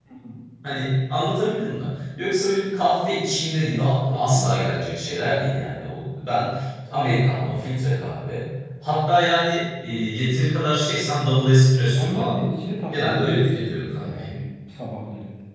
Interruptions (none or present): present